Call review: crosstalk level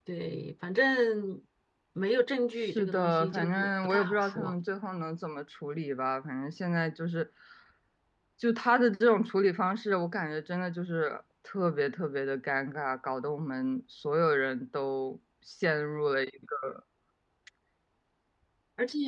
present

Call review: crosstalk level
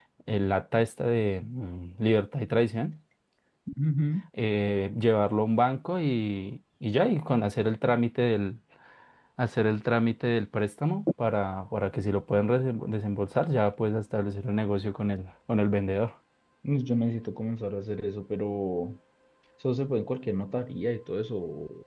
none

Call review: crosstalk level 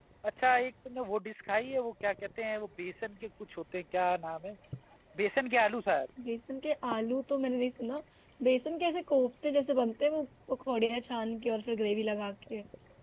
none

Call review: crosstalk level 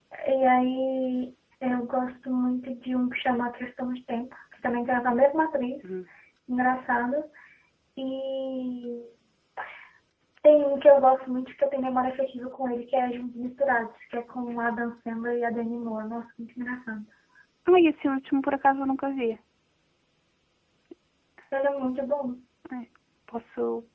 none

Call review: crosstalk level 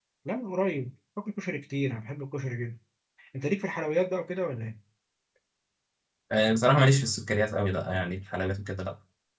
none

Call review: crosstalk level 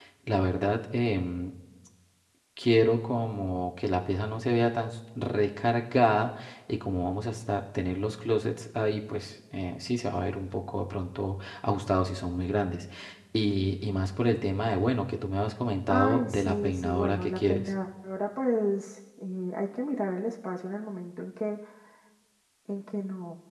present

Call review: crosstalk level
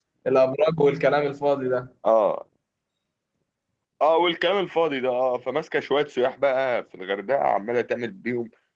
none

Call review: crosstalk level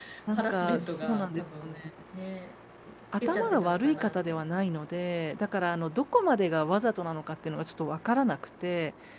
present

